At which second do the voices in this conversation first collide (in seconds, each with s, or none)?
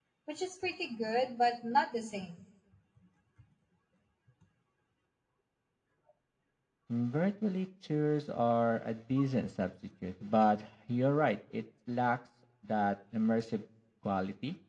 none